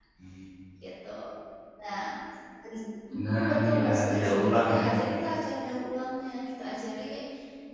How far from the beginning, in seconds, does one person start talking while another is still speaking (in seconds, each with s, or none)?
3.1 s